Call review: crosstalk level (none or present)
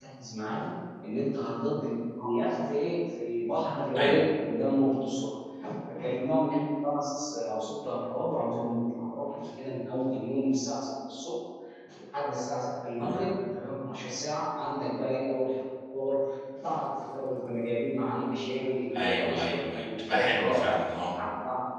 present